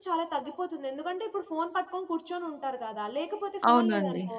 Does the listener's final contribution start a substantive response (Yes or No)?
No